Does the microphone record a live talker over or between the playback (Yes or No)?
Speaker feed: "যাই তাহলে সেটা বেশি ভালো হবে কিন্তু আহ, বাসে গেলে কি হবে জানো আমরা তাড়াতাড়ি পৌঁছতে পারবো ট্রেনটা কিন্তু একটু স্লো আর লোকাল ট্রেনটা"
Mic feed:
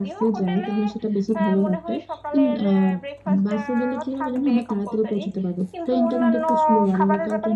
Yes